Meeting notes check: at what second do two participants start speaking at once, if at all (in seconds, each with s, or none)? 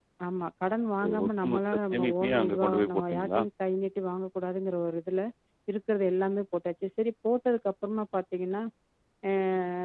1.0 s